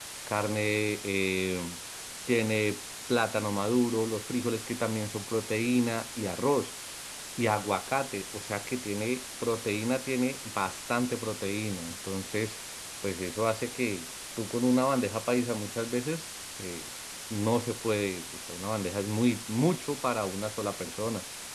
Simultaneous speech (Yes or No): No